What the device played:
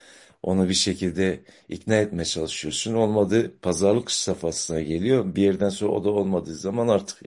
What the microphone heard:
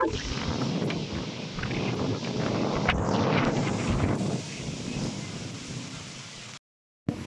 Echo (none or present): none